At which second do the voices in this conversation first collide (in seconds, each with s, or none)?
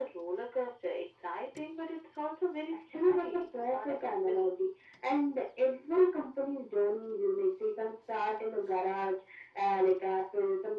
2.9 s